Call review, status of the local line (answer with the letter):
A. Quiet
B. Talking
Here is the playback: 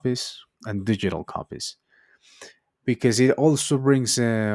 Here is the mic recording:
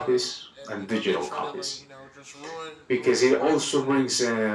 B